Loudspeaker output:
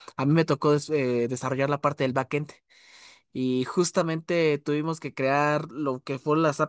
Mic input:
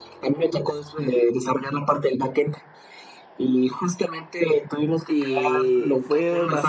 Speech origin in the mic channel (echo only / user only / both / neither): both